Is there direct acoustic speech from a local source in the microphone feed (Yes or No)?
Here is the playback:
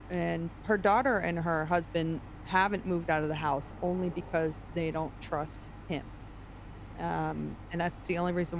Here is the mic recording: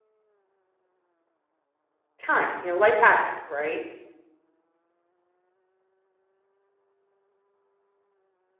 Yes